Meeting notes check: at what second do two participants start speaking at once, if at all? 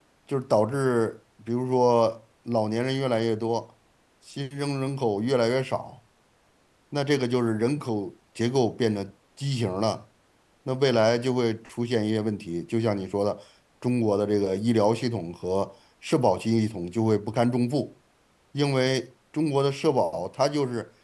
none

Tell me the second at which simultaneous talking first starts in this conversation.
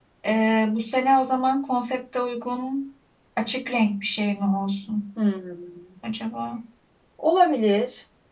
none

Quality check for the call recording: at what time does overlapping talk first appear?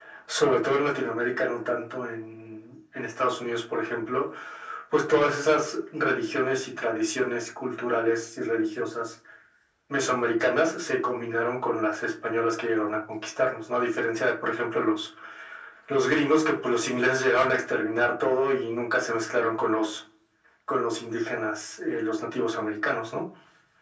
none

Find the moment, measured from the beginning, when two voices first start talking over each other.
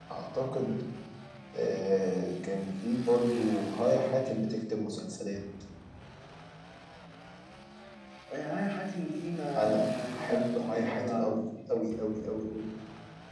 9.6 s

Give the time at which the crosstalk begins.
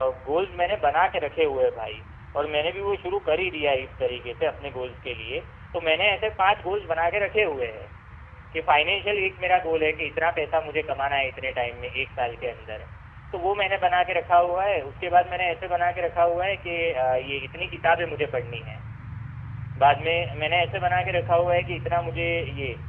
none

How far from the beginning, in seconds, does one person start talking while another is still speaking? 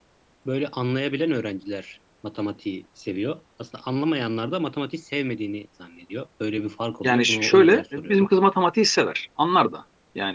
7.0 s

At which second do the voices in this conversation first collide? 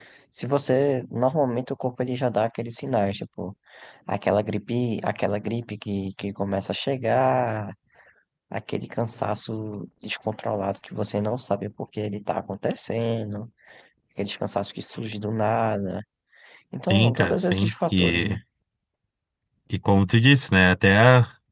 16.9 s

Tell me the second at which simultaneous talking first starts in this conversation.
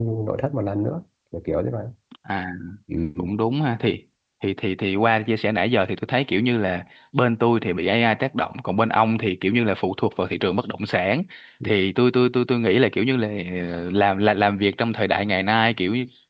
none

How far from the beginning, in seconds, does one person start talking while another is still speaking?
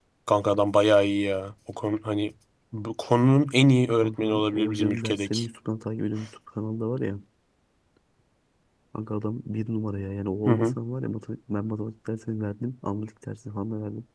4.0 s

